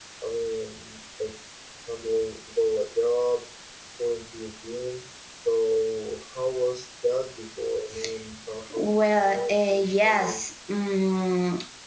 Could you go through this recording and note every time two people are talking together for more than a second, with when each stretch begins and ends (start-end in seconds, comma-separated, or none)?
8.8-10.4